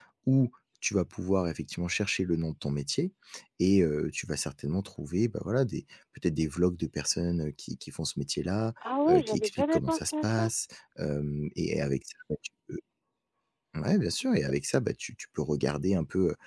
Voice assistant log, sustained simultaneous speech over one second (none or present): present